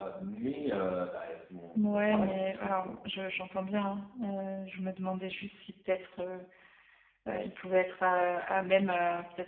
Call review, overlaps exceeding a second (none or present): present